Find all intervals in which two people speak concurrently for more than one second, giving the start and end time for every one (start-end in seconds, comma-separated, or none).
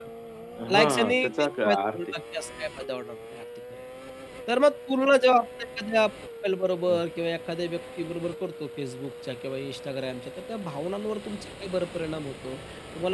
0.7-2.0